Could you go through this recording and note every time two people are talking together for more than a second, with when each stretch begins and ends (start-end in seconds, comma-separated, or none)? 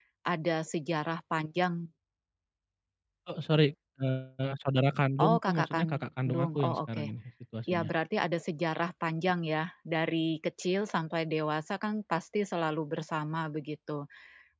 5.2-7.1